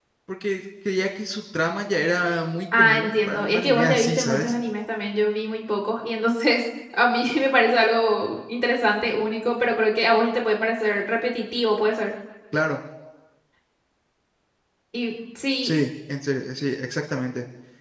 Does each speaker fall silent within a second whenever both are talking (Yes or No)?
No